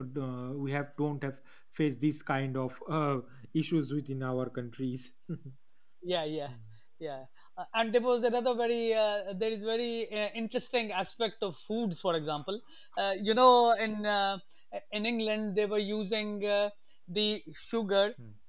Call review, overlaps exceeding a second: none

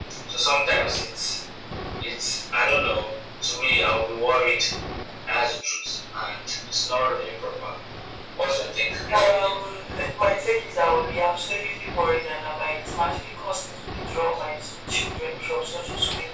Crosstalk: none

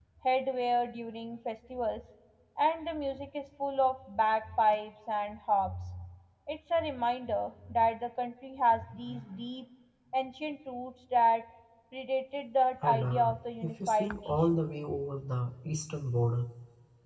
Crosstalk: present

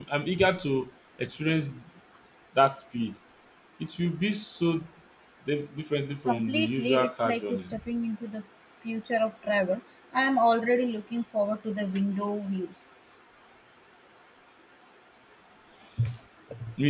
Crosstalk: present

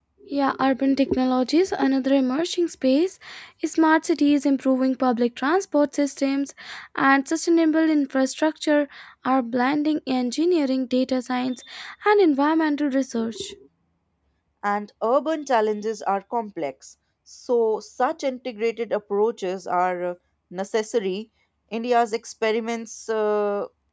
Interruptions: none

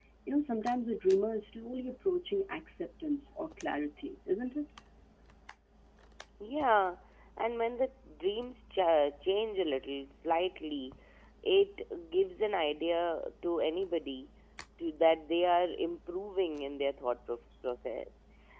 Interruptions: none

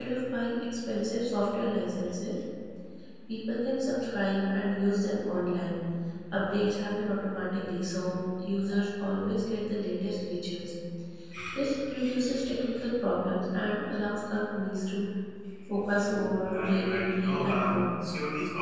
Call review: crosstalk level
present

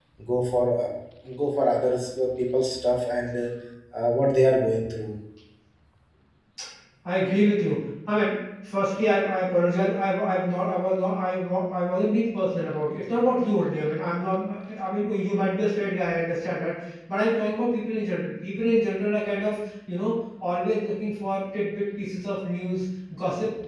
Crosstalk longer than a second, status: none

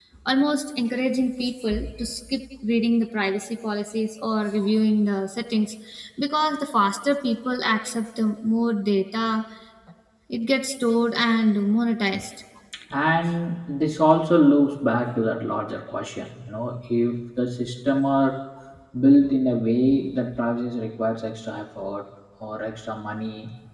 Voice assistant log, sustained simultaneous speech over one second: none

